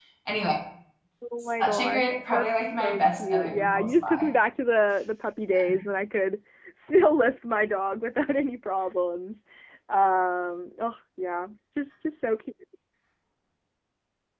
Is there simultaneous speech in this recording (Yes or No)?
Yes